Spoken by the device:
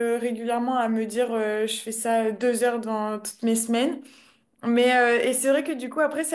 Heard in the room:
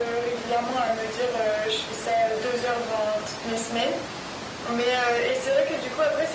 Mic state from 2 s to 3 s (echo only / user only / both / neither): echo only